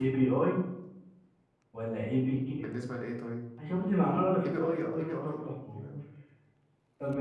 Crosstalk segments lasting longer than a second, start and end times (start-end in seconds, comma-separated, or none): 4.4-5.8